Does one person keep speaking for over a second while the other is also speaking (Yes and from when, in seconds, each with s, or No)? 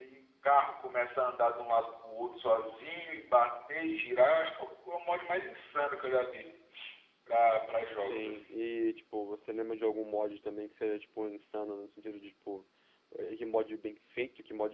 No